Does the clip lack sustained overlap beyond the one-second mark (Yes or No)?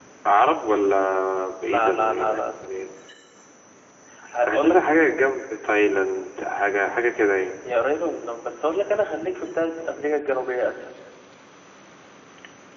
No